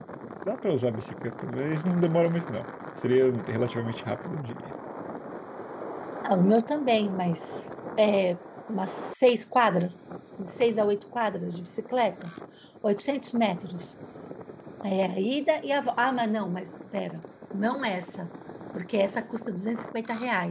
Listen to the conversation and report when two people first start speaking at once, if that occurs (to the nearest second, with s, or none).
none